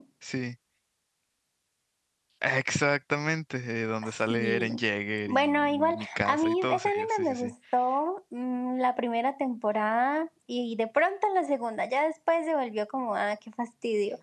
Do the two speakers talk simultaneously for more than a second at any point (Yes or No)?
Yes